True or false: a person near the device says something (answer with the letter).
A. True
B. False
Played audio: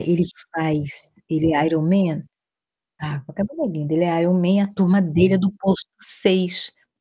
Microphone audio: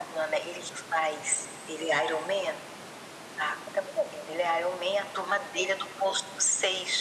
B